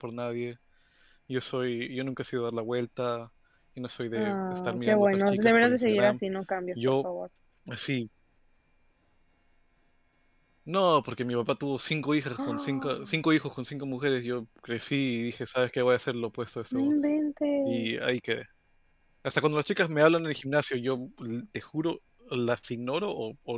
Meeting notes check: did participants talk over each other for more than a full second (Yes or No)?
Yes